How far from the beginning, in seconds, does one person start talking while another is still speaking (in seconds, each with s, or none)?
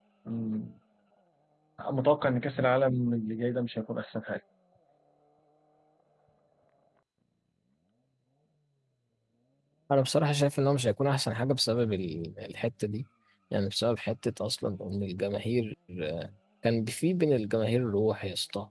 none